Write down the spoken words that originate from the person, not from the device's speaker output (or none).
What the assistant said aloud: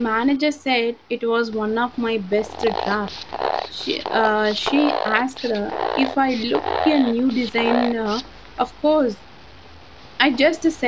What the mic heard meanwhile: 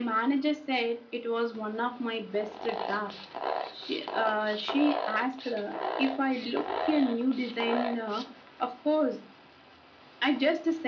none